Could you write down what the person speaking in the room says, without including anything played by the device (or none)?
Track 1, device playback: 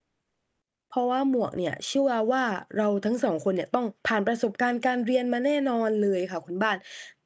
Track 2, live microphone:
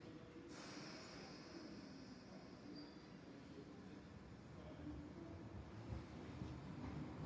none